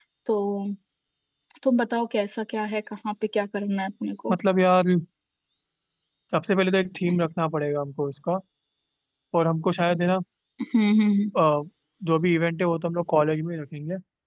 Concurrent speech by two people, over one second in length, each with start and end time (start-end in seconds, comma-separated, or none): none